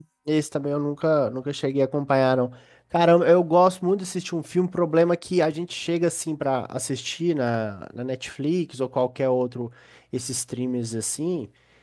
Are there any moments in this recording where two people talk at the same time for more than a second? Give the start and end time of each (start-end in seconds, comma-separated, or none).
none